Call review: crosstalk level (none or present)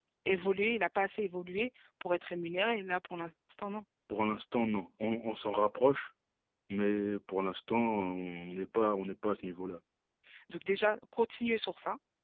none